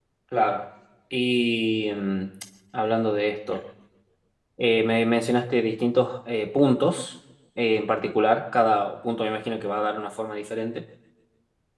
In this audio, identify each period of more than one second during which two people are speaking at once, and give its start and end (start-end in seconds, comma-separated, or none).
none